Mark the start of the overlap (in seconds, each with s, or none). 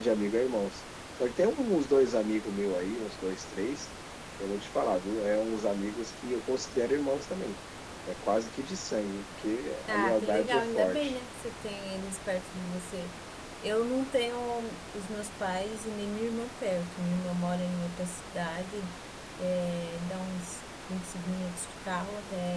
9.9 s